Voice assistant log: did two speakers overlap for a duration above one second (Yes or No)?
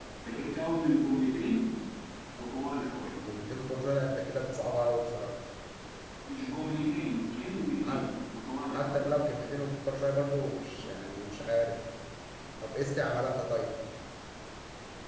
No